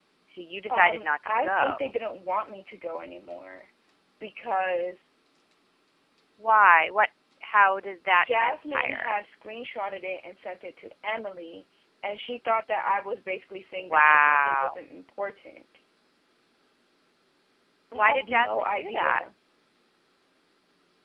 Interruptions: present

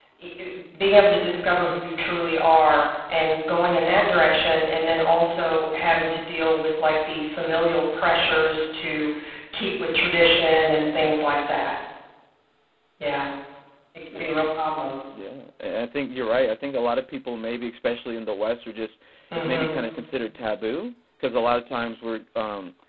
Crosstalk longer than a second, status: none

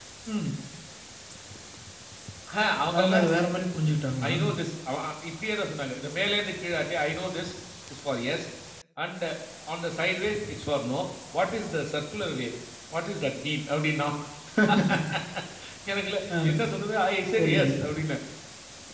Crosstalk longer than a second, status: none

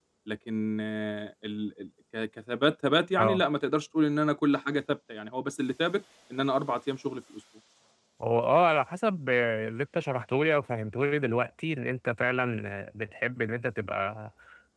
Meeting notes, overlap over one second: none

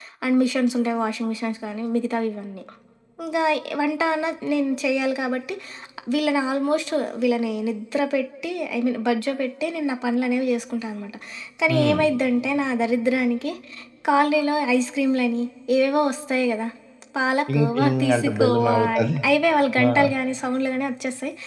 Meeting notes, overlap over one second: present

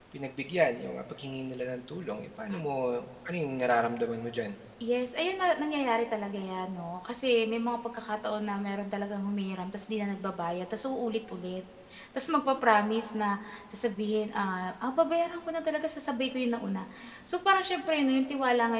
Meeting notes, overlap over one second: none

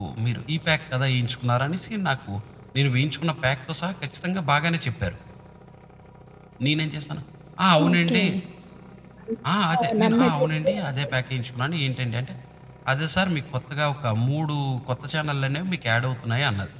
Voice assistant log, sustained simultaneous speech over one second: present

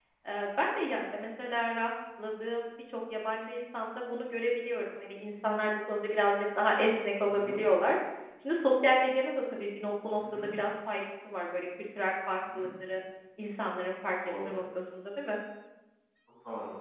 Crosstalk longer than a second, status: none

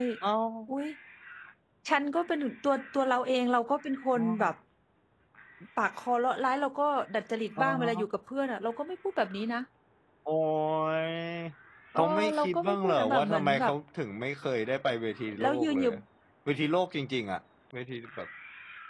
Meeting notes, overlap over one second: present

